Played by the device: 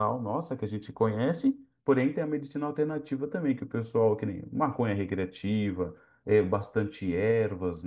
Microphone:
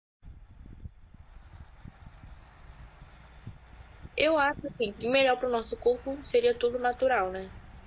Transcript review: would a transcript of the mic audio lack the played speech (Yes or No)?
Yes